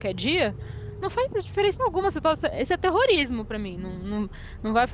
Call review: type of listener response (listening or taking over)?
taking over